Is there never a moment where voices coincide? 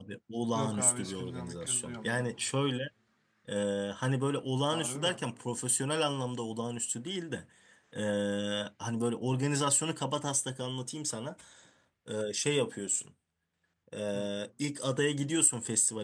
No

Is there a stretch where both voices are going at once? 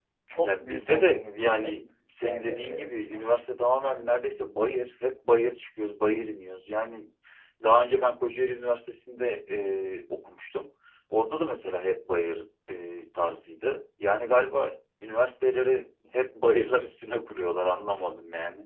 Yes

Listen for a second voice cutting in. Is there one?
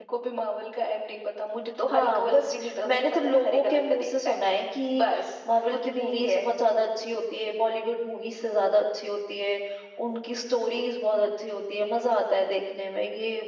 Yes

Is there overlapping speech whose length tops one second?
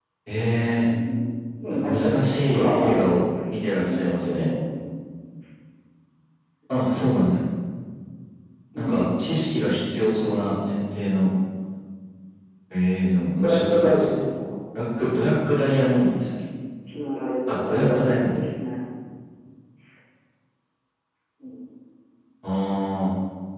Yes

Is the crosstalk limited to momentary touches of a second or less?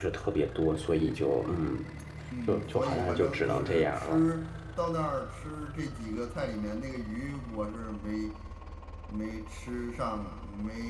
No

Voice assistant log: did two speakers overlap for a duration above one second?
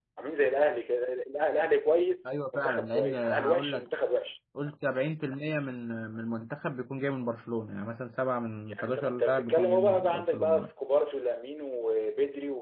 Yes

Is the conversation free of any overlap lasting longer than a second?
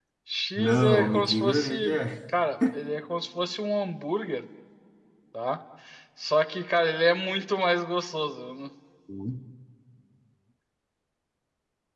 No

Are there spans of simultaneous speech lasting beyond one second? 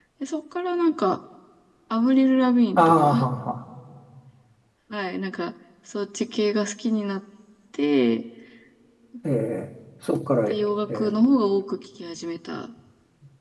No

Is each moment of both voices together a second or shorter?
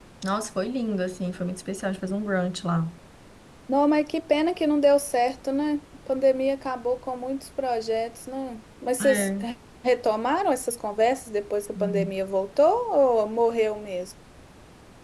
Yes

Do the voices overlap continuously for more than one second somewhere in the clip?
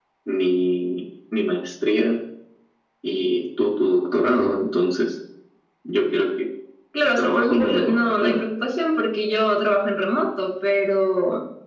Yes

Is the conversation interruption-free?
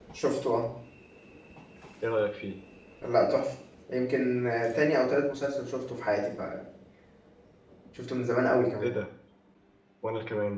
Yes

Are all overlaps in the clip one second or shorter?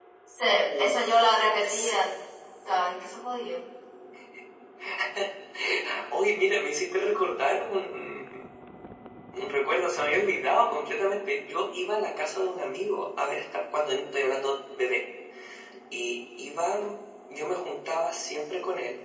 No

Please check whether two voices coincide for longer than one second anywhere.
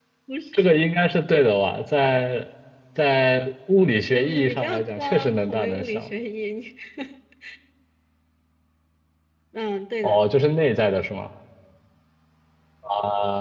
Yes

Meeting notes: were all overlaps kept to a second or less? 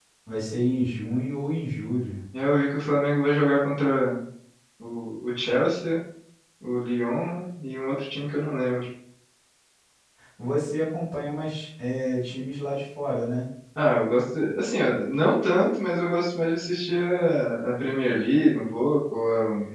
Yes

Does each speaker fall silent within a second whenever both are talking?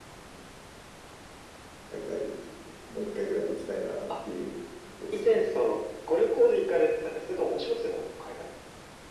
Yes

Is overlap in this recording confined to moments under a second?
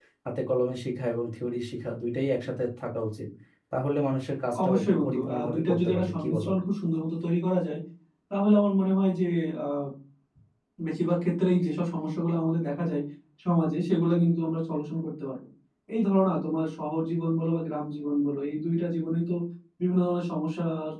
No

